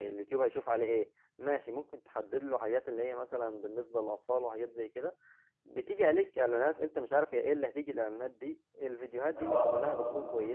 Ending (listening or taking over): listening